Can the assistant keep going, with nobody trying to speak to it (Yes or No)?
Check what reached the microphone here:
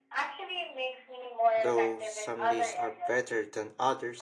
No